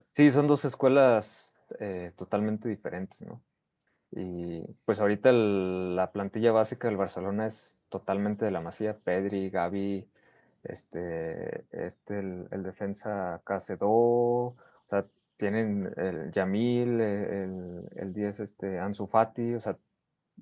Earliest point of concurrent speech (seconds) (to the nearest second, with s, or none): none